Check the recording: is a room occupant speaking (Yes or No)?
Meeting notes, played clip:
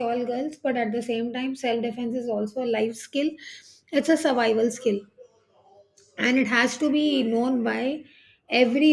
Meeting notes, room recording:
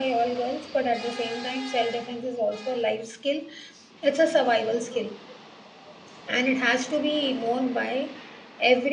No